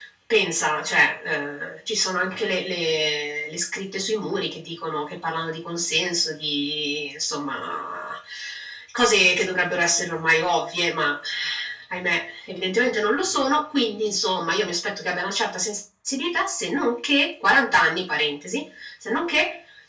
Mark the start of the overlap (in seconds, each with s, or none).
none